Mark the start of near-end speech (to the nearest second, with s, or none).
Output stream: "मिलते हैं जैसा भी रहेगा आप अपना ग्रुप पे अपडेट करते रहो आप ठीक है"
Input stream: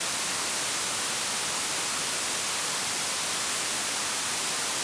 none